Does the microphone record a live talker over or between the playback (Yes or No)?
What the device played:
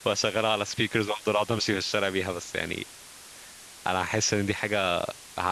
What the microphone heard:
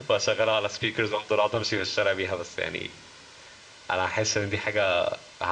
No